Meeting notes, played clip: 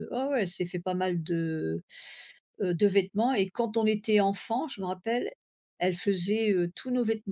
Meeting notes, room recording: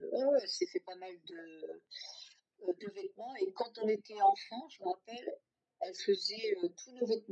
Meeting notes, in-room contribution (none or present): none